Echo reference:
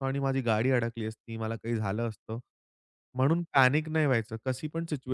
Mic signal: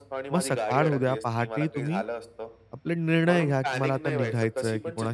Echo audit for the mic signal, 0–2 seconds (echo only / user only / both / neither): both